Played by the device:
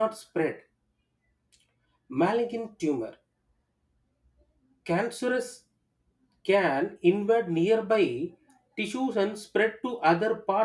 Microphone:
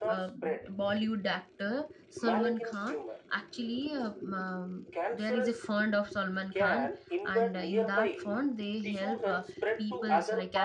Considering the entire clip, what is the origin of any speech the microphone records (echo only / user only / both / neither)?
both